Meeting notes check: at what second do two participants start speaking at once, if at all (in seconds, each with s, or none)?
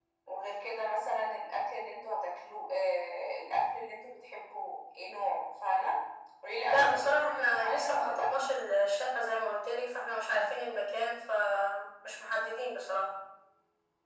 6.6 s